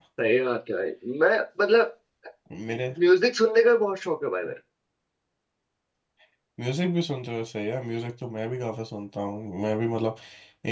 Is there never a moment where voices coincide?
Yes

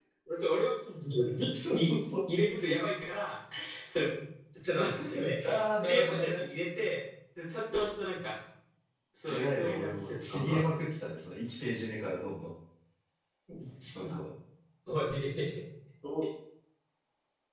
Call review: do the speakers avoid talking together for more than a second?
No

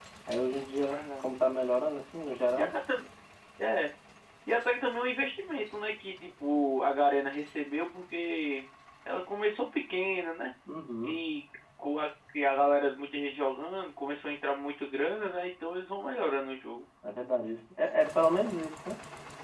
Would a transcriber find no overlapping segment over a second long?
Yes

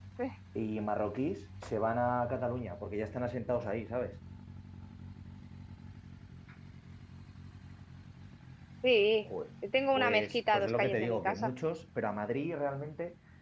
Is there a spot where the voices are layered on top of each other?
Yes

